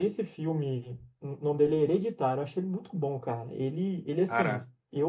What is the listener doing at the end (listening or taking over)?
listening